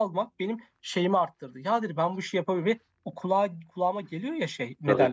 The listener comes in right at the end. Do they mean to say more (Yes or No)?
No